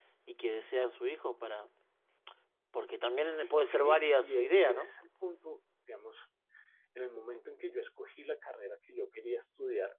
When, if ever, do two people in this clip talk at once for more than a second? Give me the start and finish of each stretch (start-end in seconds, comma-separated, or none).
3.6-4.9